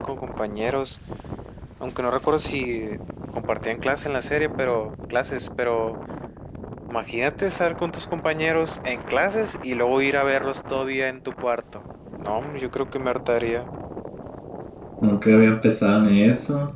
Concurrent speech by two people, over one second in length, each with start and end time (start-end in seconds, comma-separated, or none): none